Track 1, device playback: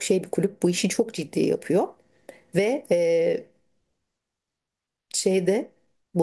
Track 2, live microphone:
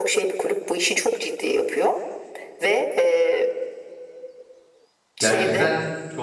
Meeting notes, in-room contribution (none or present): present